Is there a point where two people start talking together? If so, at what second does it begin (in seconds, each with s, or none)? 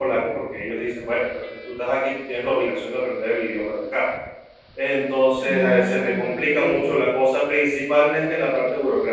5.4 s